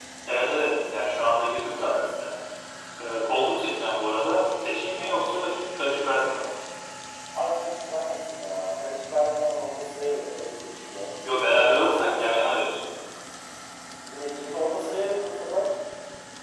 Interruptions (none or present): none